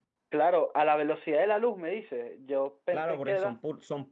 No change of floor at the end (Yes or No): No